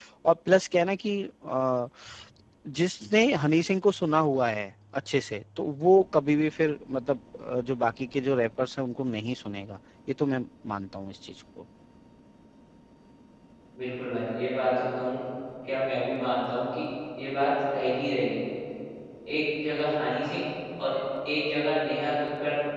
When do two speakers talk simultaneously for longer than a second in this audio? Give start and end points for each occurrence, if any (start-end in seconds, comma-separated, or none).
none